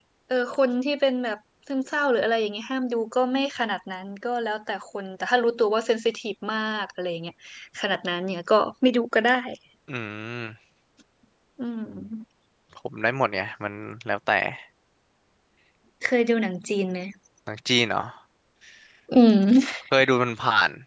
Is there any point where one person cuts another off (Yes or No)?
No